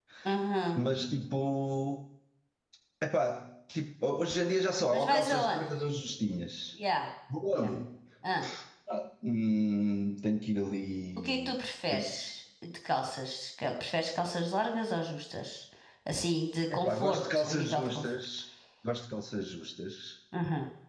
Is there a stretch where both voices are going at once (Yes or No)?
Yes